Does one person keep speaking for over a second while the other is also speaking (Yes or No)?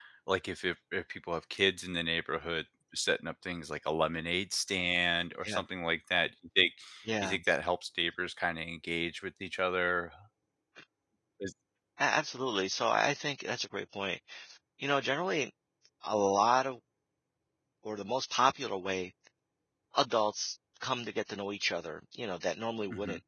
No